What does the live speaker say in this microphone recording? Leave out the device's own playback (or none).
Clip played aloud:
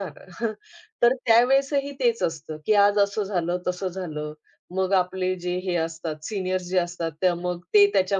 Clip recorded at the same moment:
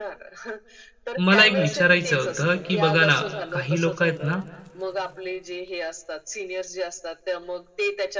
मला एक विचारायचं होतं, की बघा ना, काही लोकं आहेत ना,